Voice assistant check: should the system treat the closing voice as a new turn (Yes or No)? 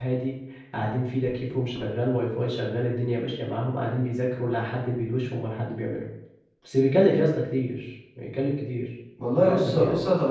Yes